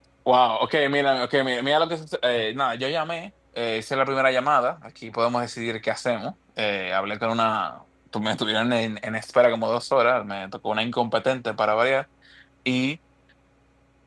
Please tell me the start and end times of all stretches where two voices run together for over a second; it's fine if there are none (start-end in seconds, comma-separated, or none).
none